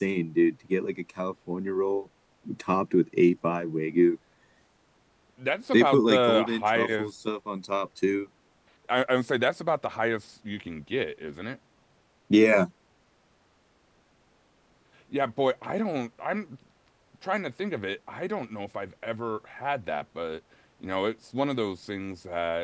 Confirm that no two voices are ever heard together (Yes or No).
No